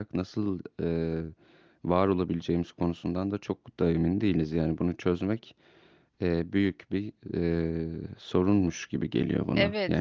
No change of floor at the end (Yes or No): No